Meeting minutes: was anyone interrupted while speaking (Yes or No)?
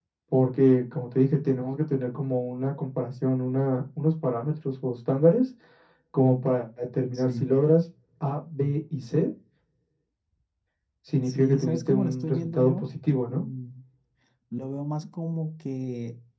Yes